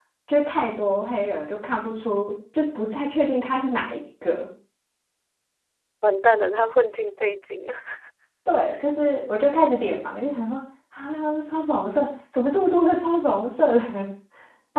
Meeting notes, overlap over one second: none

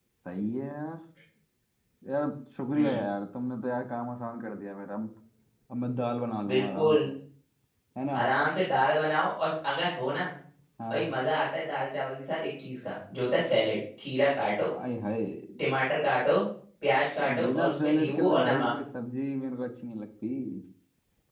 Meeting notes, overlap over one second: present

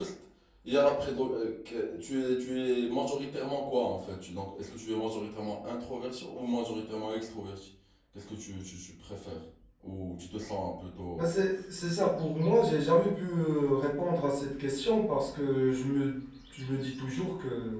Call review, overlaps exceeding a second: none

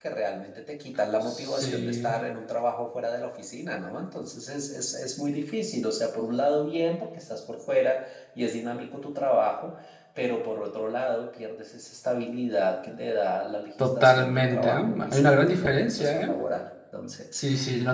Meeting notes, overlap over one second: present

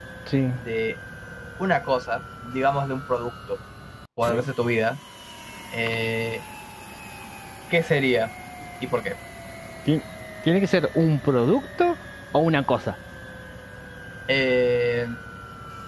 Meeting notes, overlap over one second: none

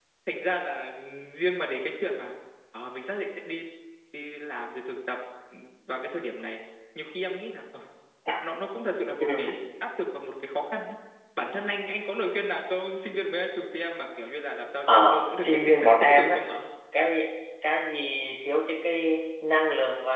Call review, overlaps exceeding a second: present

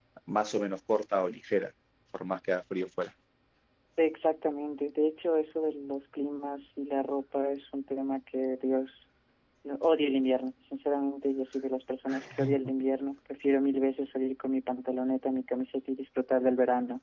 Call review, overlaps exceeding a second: none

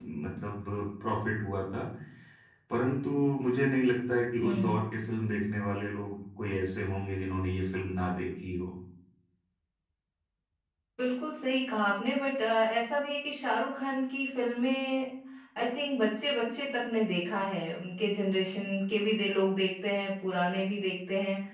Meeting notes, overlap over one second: none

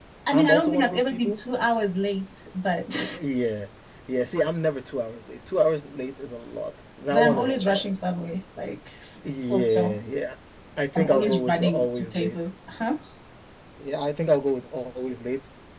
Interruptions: present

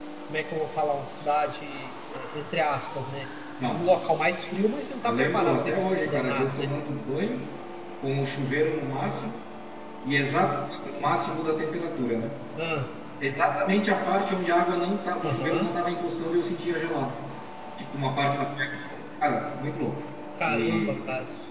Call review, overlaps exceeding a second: present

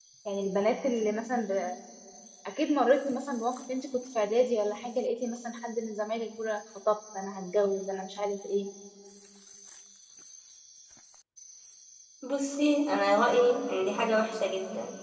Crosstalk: none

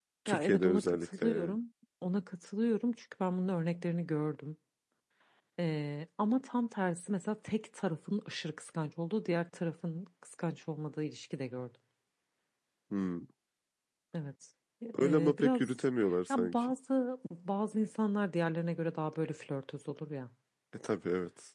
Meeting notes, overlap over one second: present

